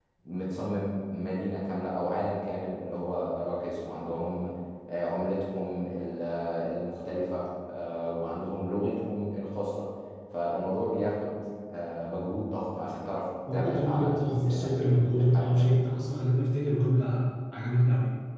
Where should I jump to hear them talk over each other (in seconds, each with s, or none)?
13.5 s